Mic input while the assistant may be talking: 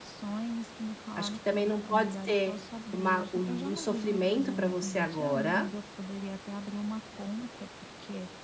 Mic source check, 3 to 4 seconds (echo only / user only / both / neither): both